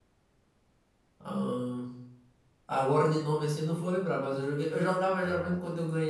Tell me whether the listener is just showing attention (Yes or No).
Yes